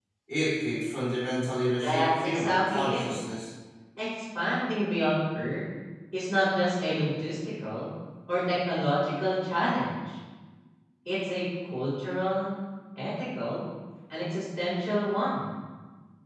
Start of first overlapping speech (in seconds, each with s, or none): 1.8 s